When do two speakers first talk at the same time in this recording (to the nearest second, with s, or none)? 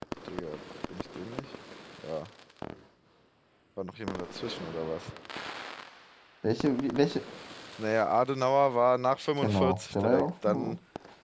9 s